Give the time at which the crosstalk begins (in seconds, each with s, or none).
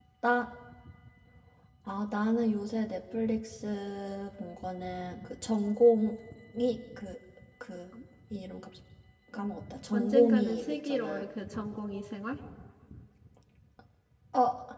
9.9 s